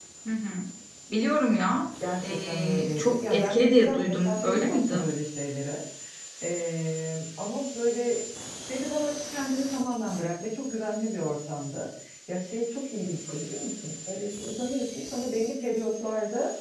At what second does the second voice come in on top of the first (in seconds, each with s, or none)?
2.0 s